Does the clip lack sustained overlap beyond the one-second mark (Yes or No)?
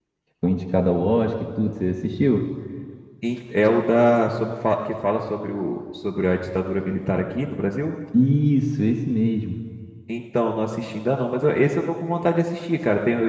Yes